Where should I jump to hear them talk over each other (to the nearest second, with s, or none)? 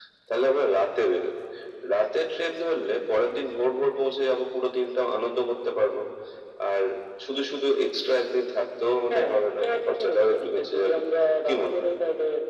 9 s